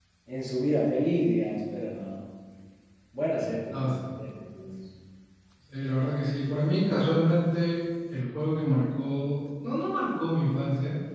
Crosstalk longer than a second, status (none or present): none